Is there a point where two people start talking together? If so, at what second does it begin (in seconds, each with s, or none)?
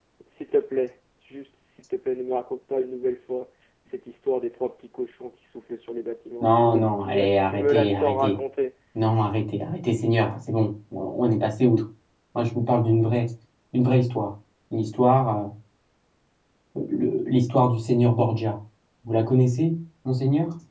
6.4 s